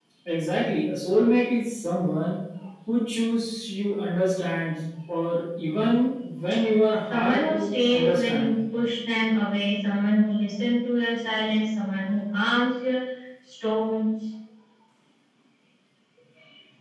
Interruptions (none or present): present